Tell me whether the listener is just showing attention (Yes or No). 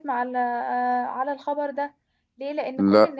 Yes